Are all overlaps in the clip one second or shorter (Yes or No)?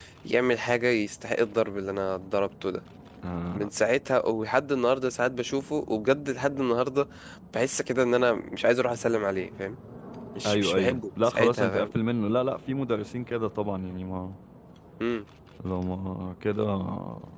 No